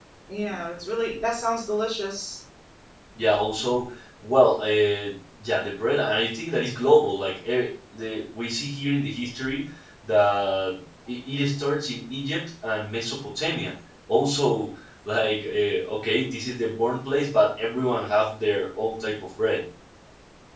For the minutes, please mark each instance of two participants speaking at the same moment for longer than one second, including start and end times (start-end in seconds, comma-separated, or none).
none